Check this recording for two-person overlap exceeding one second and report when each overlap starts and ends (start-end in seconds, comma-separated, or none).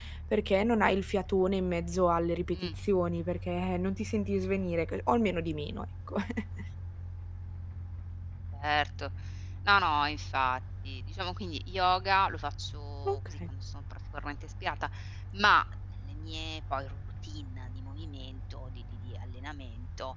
none